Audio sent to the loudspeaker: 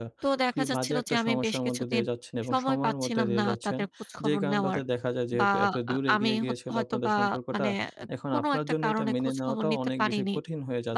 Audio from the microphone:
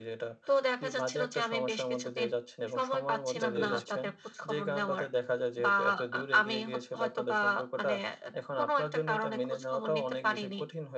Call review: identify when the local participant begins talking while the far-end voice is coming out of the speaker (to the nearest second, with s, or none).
3 s